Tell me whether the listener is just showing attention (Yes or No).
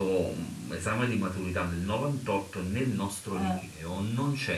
Yes